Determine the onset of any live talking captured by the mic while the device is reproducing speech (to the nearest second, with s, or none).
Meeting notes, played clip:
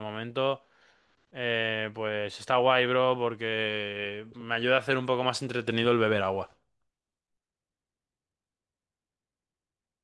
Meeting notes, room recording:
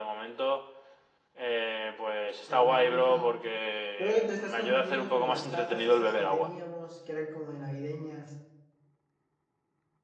2 s